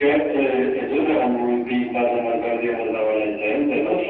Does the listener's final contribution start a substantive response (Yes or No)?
Yes